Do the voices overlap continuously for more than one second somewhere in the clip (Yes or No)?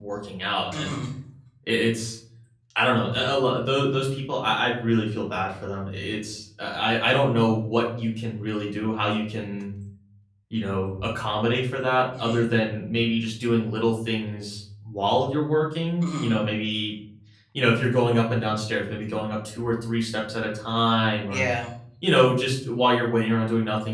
No